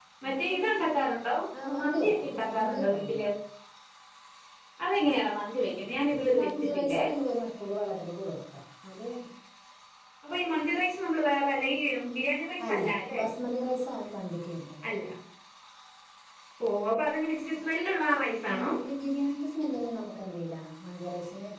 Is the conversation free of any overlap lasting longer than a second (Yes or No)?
No